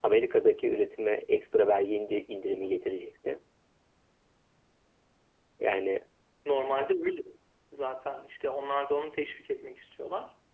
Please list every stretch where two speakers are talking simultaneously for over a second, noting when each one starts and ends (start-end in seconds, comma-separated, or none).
none